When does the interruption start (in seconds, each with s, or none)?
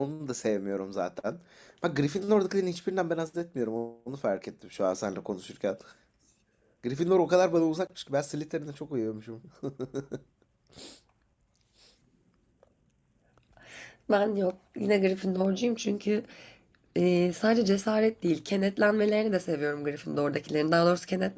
none